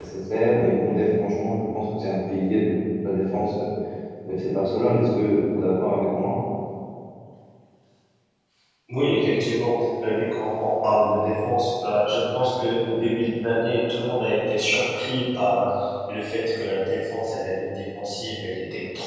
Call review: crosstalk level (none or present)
none